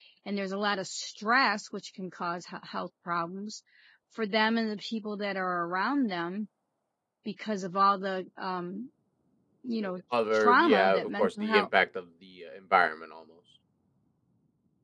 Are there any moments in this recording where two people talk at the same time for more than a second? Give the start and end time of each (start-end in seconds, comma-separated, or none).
10.3-11.7